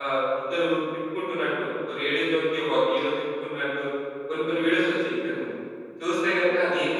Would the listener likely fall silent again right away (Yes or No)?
Yes